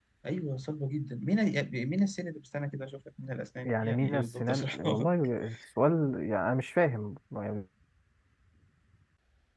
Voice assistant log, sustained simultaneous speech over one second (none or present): present